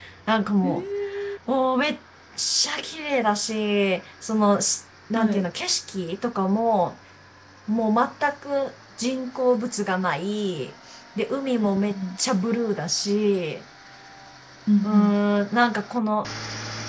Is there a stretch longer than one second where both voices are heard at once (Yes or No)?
No